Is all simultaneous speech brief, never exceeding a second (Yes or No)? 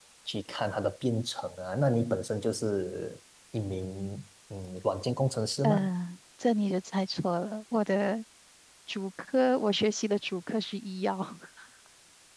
Yes